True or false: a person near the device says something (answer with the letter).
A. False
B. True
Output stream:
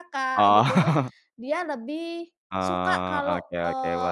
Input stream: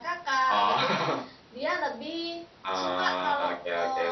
A